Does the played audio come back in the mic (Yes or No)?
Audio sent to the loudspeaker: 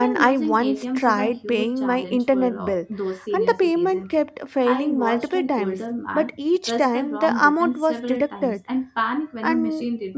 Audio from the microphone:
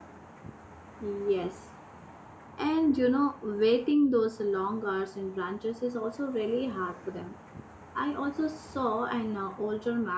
No